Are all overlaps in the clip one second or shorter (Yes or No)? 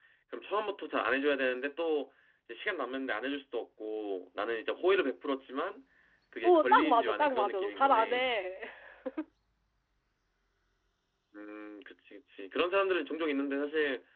No